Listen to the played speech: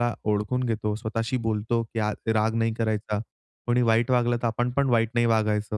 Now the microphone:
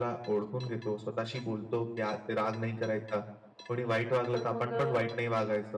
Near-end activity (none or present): present